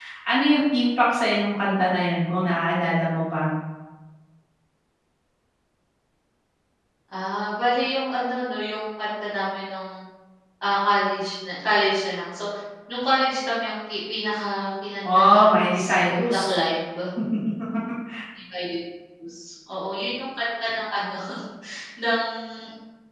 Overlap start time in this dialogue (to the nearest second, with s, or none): 15 s